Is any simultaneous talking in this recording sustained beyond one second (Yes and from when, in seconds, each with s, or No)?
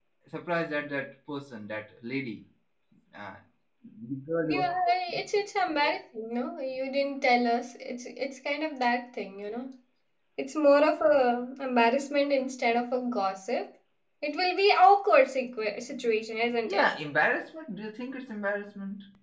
No